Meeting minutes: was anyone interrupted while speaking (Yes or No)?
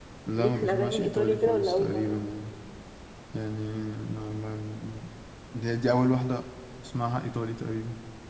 Yes